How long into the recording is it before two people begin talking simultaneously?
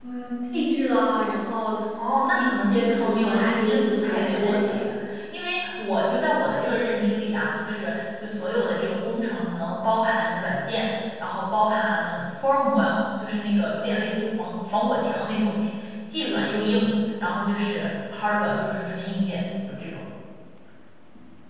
2.3 s

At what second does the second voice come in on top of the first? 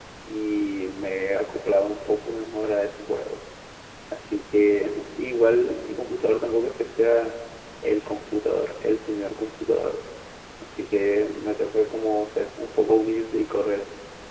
none

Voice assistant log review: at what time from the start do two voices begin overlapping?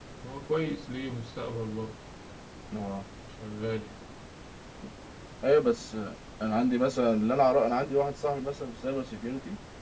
none

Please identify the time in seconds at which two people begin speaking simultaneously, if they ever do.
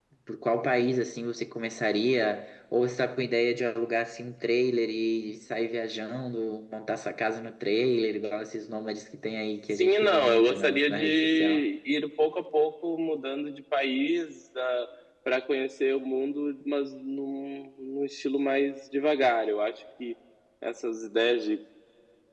9.8 s

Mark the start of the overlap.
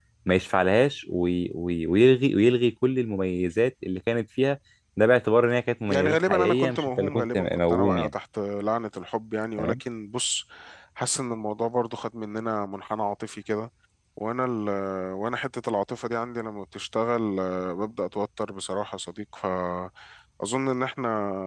5.9 s

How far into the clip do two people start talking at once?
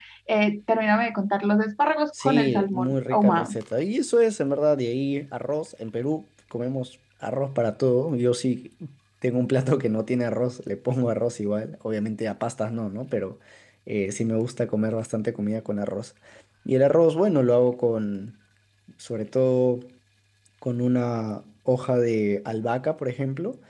2.1 s

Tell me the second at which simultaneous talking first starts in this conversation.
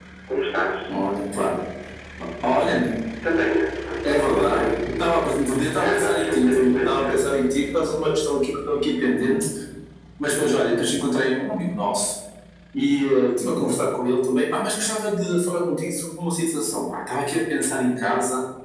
4.0 s

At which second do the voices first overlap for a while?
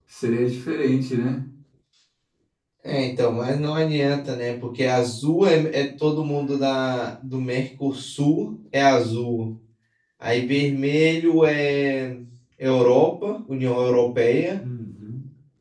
none

